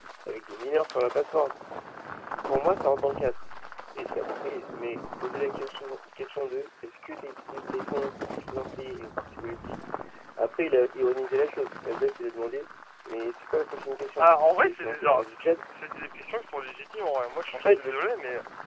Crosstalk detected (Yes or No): Yes